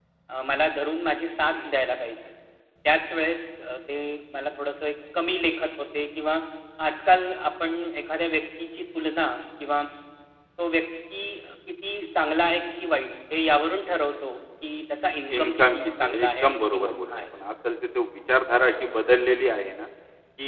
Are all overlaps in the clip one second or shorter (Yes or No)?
No